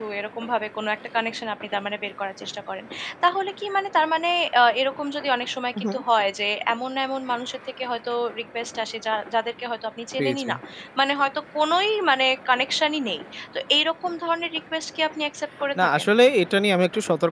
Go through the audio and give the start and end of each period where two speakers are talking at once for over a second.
none

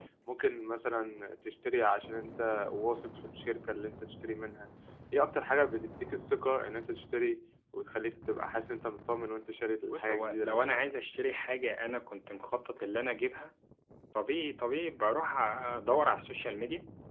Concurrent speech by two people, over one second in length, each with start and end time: 9.9-11.4

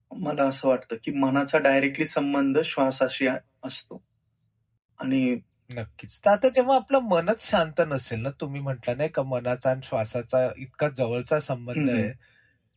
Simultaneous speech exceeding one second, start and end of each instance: none

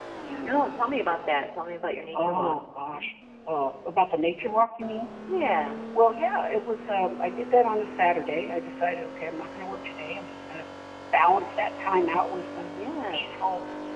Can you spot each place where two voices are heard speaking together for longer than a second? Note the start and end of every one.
none

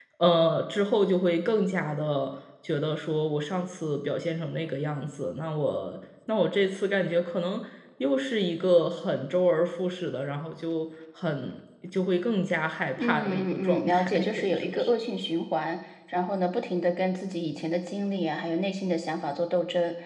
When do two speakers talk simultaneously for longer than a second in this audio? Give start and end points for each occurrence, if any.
13.0-14.9

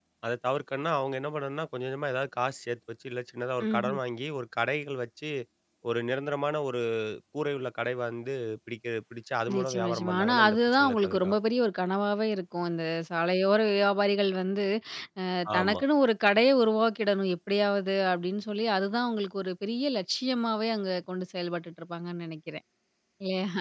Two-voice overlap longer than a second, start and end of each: 9.6-11.4

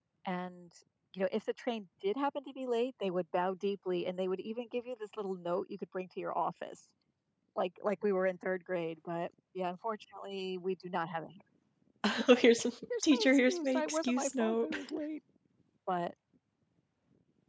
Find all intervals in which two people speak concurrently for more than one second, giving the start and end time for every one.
13.0-14.8

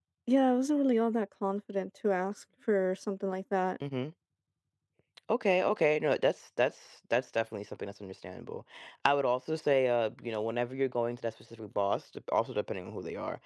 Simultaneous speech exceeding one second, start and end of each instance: none

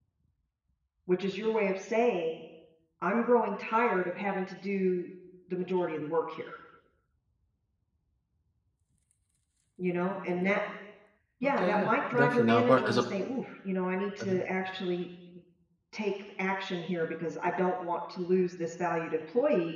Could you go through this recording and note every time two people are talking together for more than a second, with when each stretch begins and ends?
11.4-13.0

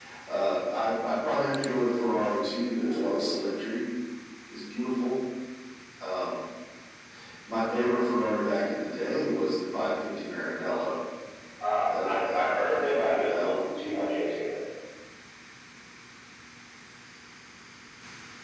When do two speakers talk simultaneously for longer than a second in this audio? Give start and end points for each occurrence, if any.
11.9-13.5

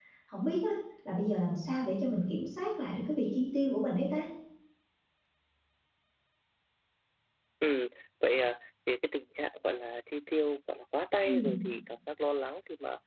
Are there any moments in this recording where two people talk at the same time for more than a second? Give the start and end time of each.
none

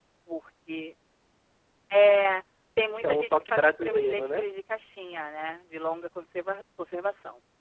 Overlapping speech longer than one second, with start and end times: 3.0-4.5

